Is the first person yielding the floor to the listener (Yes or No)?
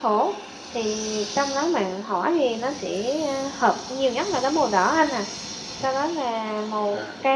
No